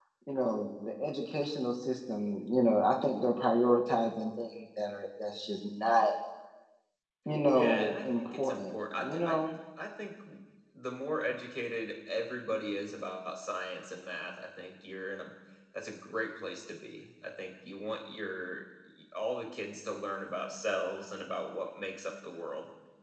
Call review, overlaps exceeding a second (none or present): present